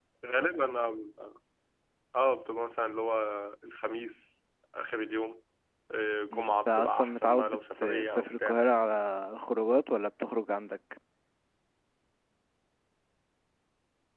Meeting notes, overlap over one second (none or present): present